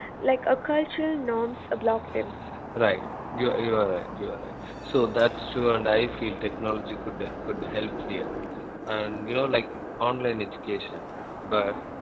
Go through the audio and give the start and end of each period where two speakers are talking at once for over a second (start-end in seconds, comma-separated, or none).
none